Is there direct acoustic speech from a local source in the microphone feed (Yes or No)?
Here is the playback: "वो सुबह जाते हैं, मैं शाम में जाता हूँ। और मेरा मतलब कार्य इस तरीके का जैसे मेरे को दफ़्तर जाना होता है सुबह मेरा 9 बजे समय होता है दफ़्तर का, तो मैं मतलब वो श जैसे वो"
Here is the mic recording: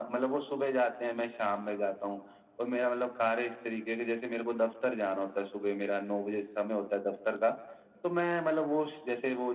No